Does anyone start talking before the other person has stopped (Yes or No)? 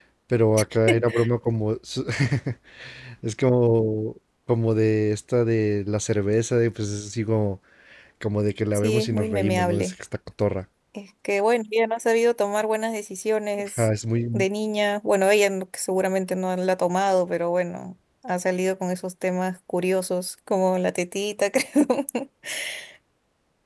Yes